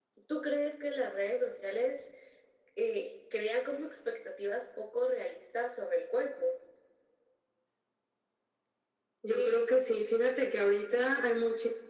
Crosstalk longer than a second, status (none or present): none